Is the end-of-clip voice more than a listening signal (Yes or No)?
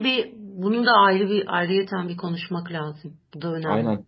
Yes